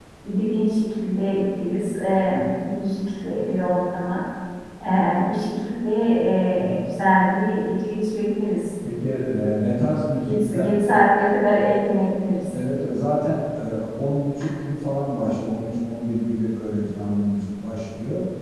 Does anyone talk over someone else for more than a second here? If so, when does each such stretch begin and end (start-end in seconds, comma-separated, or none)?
none